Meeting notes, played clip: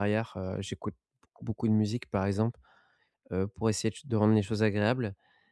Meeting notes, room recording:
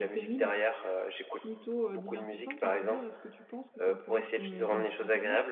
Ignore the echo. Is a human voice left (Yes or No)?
Yes